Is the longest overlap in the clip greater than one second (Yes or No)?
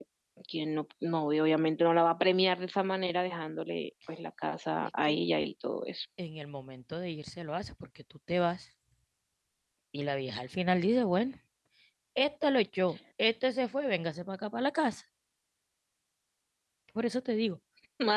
No